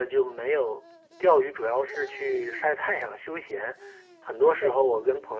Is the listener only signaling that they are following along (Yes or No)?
Yes